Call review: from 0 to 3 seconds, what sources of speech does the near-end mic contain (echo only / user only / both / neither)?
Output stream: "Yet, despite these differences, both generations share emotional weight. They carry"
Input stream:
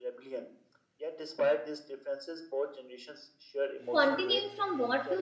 echo only